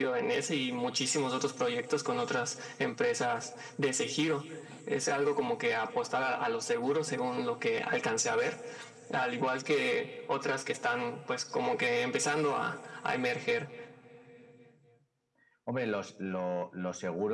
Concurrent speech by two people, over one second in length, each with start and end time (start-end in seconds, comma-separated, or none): none